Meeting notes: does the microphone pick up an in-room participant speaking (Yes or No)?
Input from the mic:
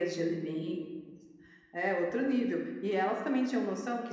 No